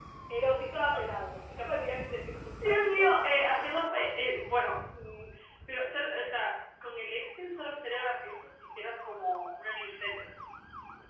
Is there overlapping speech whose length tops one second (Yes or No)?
No